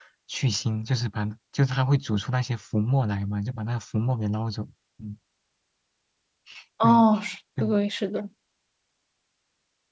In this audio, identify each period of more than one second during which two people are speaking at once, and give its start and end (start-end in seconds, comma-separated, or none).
none